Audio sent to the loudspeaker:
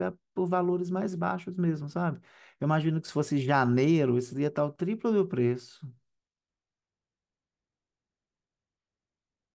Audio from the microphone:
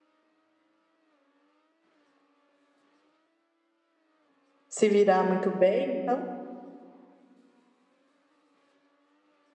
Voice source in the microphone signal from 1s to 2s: neither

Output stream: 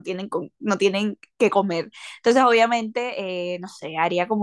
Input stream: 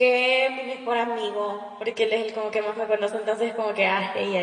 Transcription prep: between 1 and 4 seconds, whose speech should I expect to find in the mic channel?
user only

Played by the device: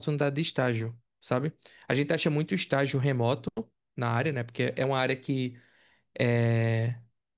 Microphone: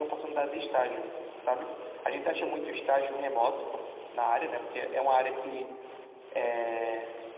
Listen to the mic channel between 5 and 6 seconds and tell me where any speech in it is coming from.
echo only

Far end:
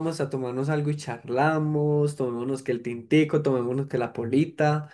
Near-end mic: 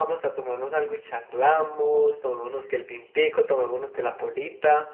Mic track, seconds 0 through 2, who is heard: echo only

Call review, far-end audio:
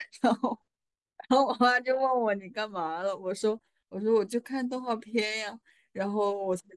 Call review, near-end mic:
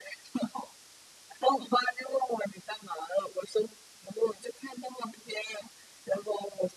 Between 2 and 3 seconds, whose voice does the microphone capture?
echo only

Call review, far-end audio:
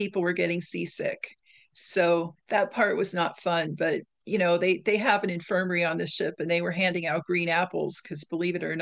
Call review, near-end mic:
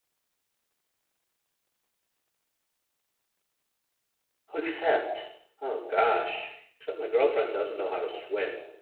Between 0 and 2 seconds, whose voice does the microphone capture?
neither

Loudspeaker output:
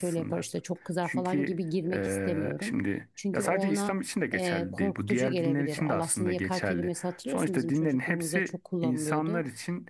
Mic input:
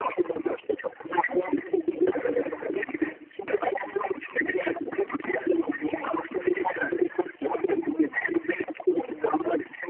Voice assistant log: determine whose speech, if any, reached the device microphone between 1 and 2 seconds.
echo only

